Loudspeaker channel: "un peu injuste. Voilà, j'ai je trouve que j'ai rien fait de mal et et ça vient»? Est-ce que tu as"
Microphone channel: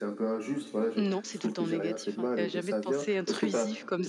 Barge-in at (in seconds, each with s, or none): 1.0 s